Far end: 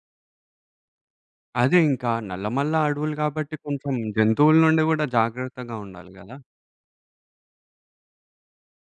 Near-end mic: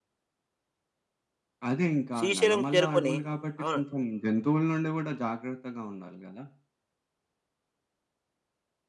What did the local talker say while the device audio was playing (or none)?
శ్రీశైలం చేరుకొని అవును.